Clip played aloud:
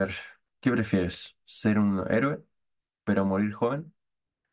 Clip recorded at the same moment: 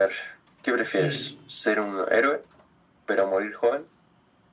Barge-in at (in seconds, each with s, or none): 0.8 s